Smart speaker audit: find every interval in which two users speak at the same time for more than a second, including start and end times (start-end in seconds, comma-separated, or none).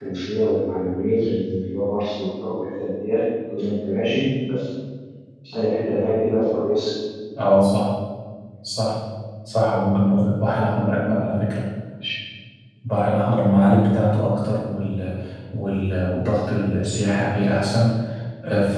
none